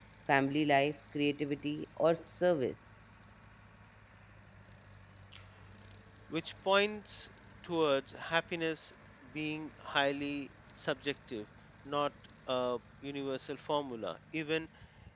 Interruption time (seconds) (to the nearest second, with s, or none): none